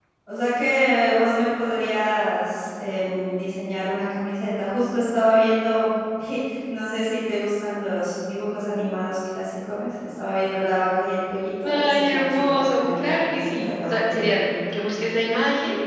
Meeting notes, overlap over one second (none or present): present